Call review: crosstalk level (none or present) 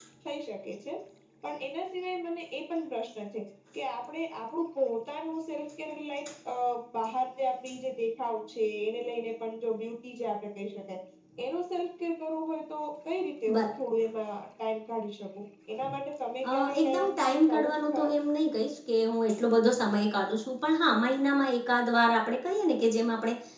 present